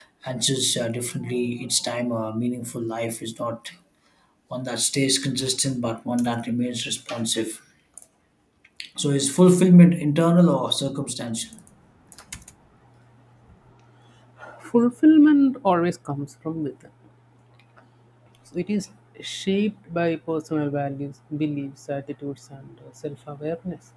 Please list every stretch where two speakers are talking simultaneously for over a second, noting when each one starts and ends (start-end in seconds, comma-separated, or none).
none